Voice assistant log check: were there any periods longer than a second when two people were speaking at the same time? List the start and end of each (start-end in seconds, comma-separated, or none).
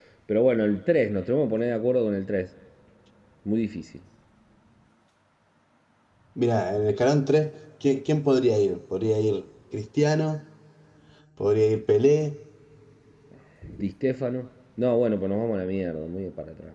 none